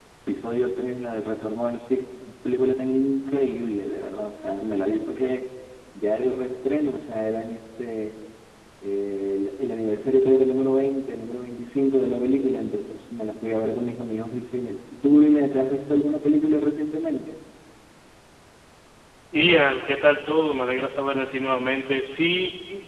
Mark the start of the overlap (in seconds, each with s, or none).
none